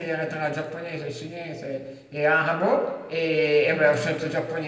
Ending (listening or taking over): listening